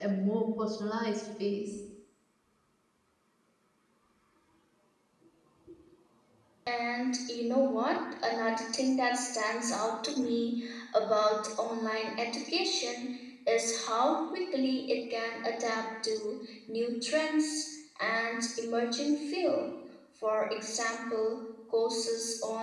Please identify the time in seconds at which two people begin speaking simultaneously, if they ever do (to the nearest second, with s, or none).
none